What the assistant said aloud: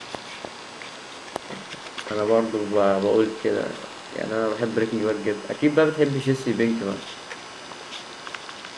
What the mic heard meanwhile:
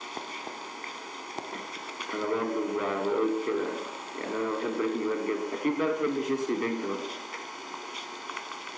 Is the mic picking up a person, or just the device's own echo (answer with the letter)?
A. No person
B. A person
A